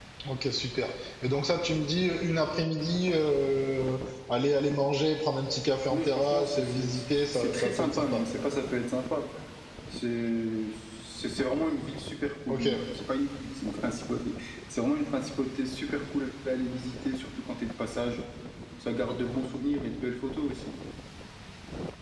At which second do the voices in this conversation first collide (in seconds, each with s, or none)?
5.9 s